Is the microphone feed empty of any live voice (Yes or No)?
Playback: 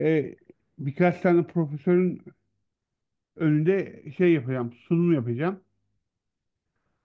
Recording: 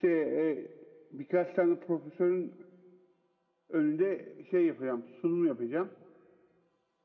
Yes